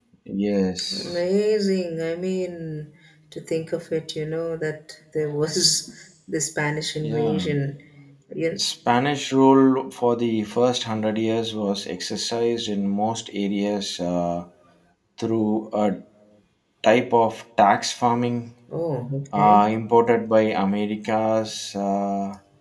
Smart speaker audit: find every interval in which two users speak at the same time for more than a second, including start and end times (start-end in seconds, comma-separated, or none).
none